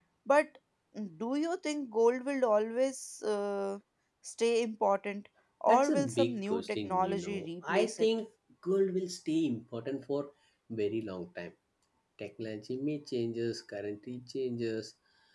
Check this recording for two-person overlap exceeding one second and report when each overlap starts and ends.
5.7-8.1

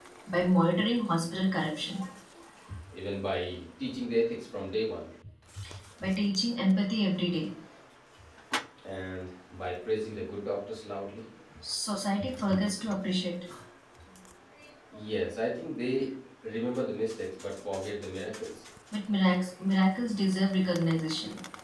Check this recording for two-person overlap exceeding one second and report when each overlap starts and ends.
none

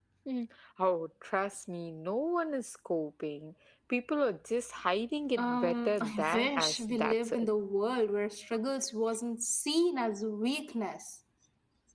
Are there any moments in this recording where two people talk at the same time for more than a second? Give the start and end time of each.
5.4-7.5

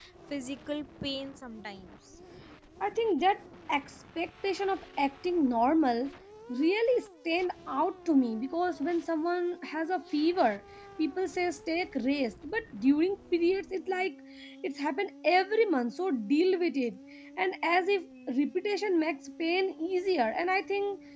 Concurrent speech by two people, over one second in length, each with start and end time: none

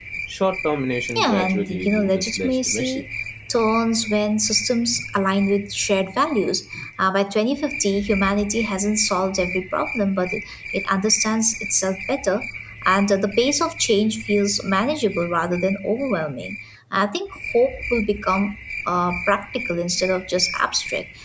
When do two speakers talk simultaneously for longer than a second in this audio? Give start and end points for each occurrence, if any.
1.1-3.0

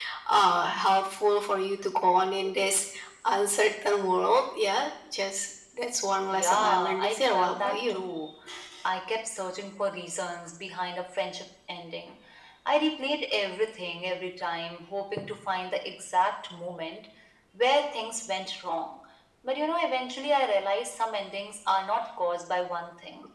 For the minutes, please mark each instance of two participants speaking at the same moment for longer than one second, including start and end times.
6.3-8.0

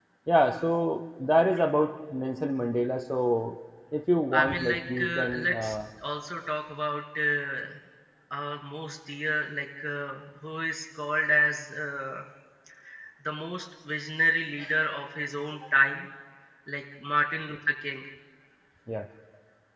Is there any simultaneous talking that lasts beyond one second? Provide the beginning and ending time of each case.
4.3-5.8

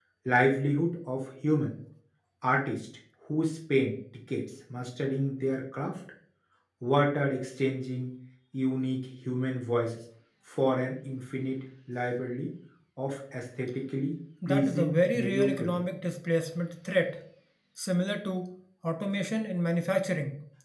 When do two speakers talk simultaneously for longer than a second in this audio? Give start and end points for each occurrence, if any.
14.5-15.8

